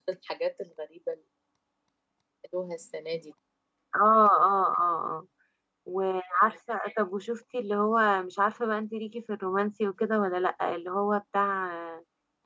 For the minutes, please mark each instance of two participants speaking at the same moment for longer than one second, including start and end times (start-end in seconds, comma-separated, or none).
none